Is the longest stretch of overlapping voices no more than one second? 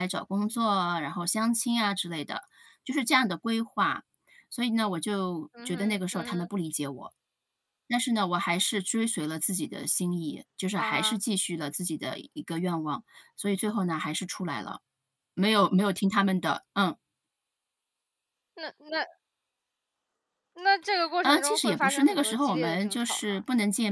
No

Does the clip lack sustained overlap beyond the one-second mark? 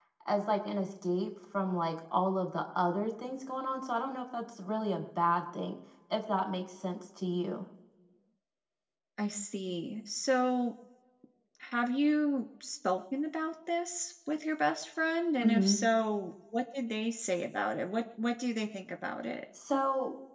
Yes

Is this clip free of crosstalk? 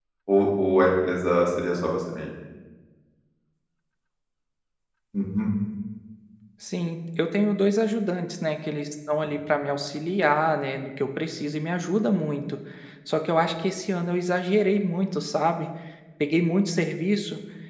Yes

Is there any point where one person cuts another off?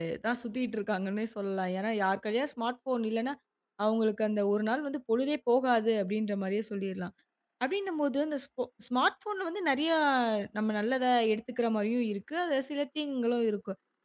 No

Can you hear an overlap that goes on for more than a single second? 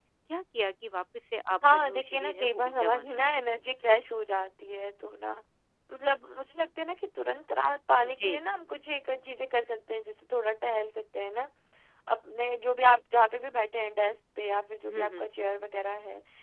Yes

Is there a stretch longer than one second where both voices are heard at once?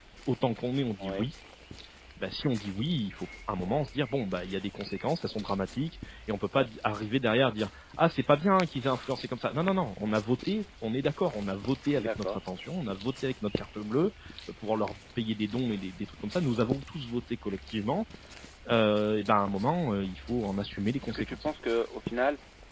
No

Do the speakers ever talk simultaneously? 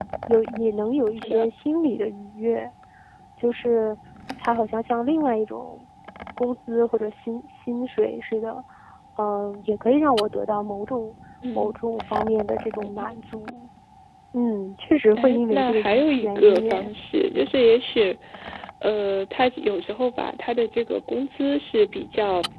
Yes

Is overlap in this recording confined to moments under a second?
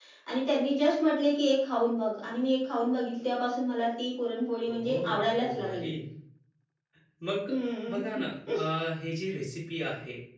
No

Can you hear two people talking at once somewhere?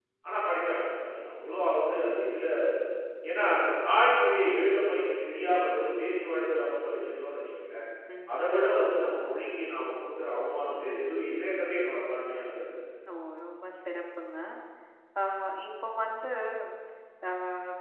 No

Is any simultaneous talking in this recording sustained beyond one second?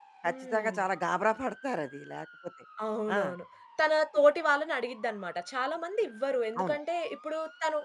No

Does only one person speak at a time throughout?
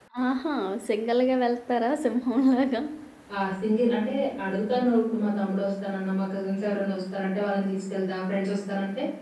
Yes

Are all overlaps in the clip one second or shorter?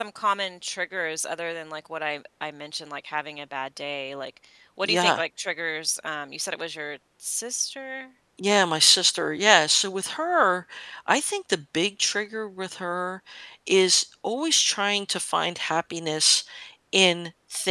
Yes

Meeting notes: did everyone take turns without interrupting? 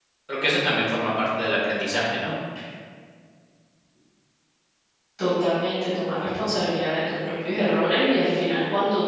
Yes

